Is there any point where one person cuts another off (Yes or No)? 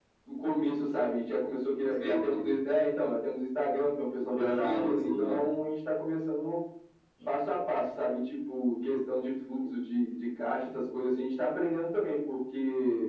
Yes